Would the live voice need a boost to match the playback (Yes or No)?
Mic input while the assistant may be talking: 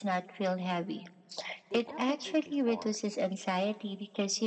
Yes